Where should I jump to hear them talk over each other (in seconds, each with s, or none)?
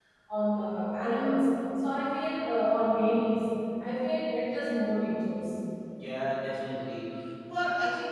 none